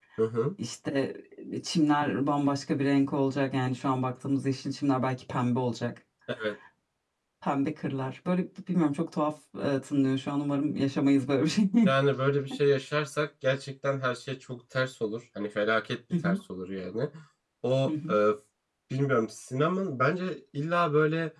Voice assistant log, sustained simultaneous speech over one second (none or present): none